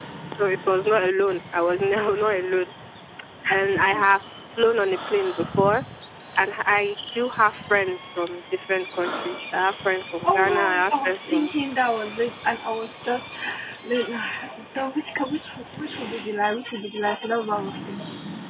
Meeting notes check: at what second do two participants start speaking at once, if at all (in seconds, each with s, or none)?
10.2 s